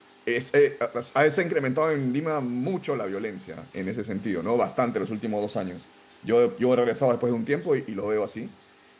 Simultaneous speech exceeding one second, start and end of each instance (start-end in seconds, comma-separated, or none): none